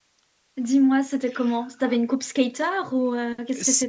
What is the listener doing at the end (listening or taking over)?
taking over